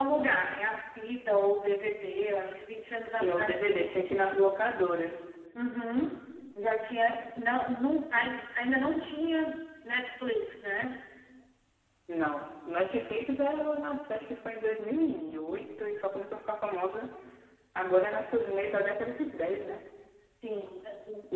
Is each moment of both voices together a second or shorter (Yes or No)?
Yes